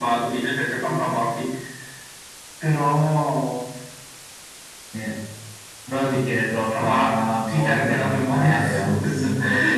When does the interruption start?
6.6 s

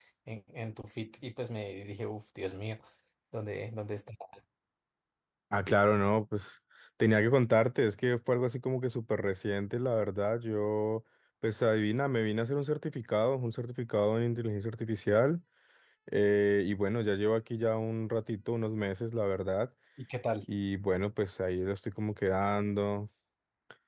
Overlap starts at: none

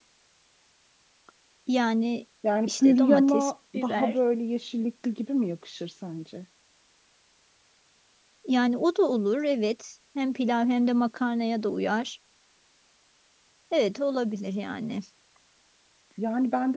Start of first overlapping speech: 2.7 s

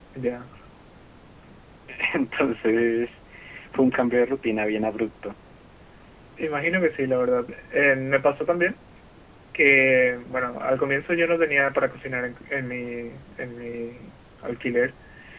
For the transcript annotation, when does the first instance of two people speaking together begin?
none

